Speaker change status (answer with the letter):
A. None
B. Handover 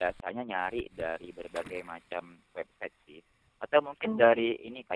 A